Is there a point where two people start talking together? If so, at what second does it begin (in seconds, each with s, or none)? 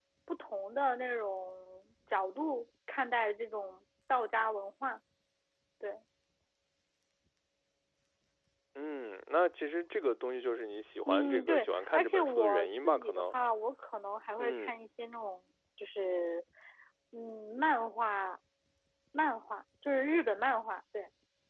11.1 s